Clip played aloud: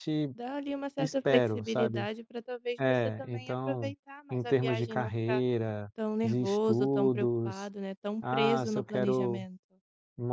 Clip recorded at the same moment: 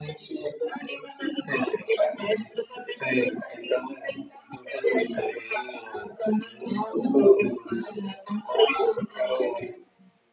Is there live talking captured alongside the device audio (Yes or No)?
No